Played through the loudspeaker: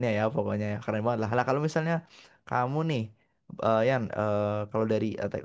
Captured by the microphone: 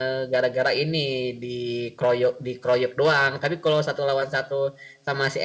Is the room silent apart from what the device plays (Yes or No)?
No